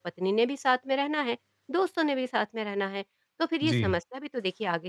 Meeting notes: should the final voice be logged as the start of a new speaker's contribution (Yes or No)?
No